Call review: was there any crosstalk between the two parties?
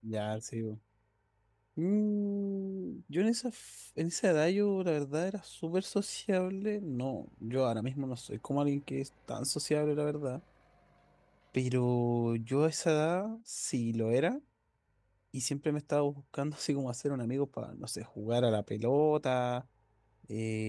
No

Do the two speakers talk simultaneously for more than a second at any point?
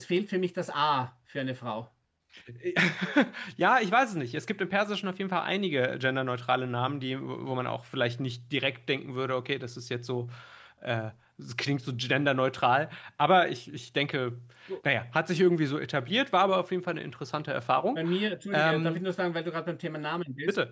No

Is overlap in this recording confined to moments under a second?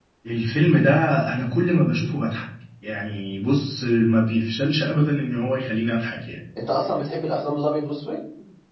Yes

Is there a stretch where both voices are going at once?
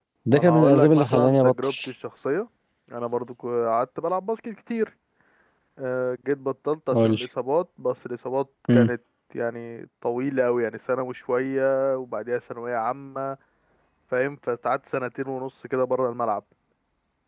Yes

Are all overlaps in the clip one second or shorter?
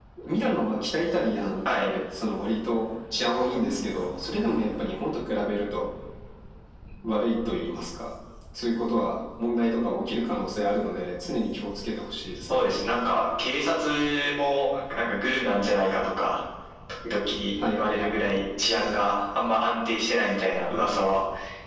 Yes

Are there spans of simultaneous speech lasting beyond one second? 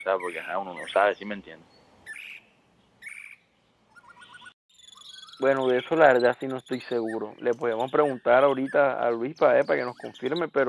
No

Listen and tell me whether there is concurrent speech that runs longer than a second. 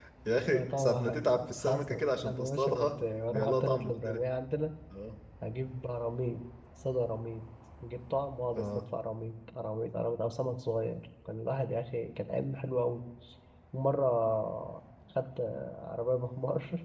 Yes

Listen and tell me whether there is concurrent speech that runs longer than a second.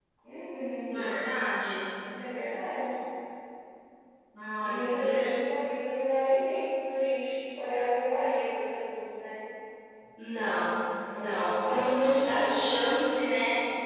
Yes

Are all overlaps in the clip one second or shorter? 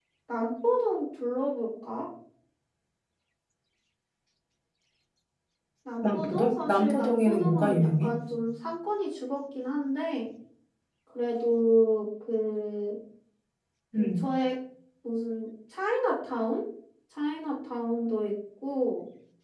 No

